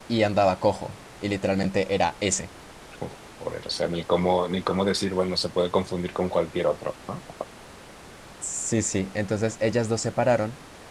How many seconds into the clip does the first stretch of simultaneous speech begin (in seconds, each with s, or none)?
none